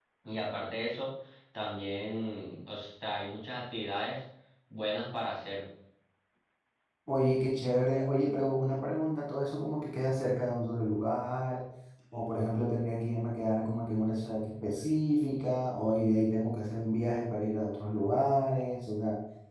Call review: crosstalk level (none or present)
none